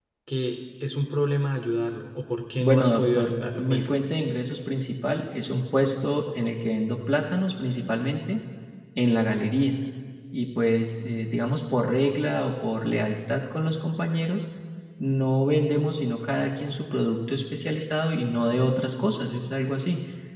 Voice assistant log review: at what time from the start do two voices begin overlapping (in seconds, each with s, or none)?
2.6 s